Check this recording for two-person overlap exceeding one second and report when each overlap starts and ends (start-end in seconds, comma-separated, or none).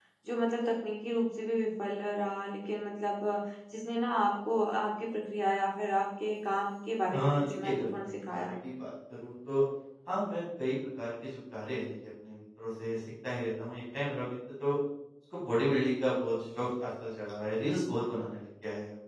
7.1-8.5